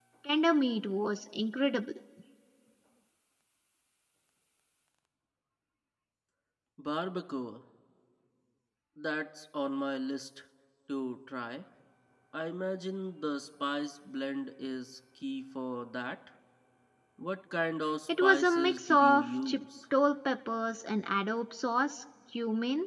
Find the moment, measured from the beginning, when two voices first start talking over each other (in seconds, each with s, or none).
18.1 s